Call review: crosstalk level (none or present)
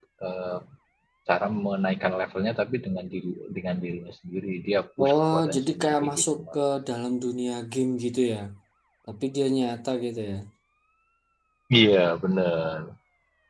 present